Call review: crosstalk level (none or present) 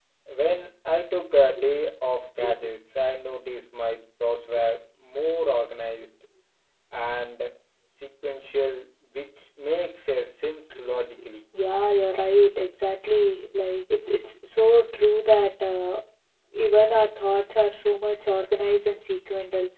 none